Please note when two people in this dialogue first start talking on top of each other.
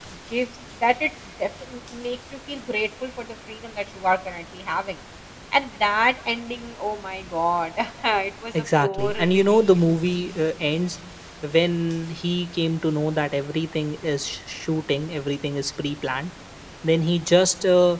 8.5 s

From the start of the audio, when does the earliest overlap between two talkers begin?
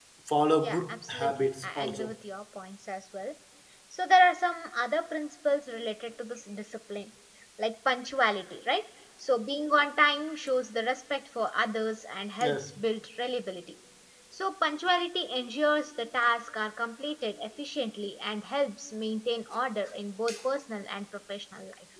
0.6 s

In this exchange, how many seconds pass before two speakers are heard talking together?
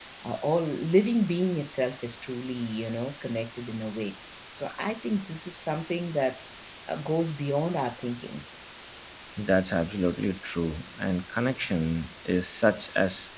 none

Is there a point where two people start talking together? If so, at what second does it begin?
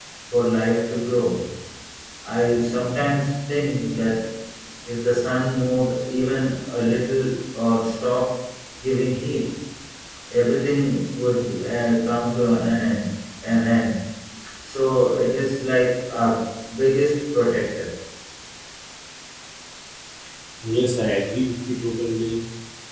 none

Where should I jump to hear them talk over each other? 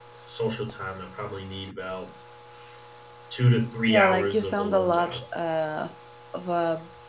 3.9 s

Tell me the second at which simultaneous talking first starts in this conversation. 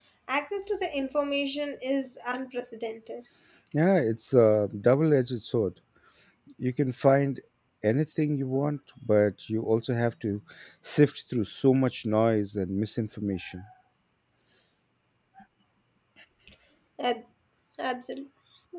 none

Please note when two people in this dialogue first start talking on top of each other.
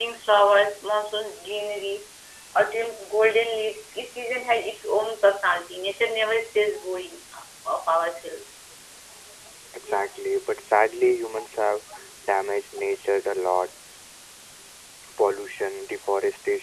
none

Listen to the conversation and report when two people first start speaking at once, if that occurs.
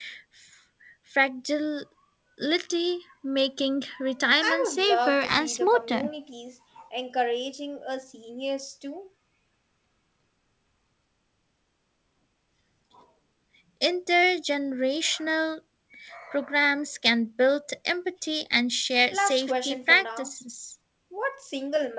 4.4 s

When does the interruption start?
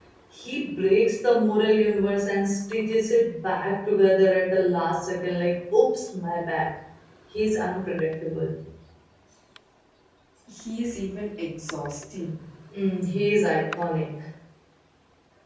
none

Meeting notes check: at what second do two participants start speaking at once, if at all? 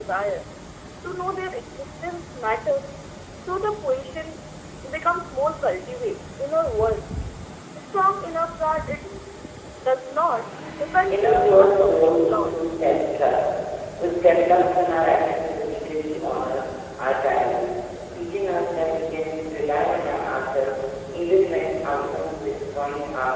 11.1 s

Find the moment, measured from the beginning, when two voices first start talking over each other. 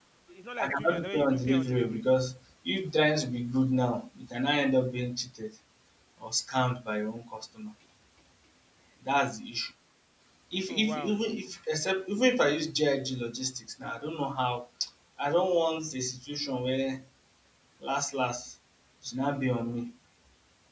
0.6 s

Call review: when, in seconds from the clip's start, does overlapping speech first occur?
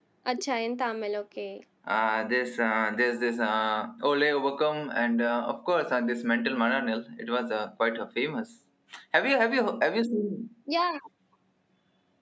none

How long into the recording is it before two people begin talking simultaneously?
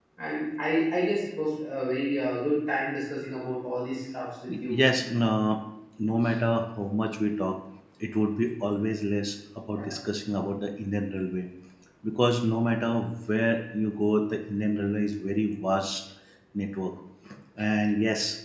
none

